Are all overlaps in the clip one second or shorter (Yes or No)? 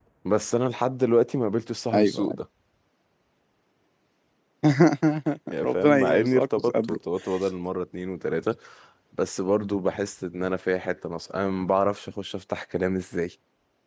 No